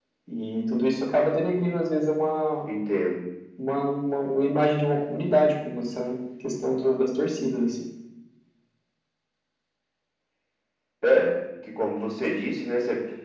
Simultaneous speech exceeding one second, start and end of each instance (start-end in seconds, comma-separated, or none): none